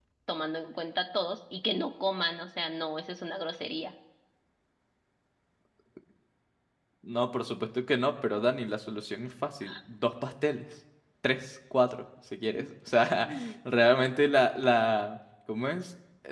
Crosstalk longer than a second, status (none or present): none